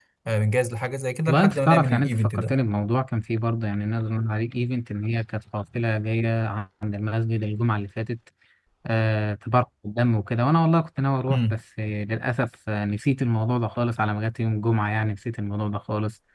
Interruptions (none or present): present